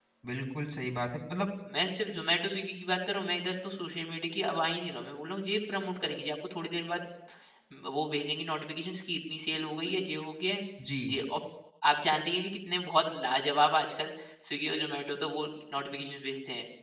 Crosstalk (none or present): none